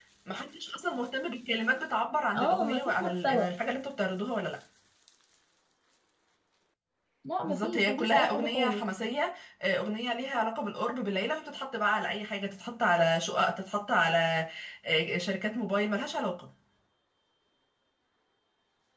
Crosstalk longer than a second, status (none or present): present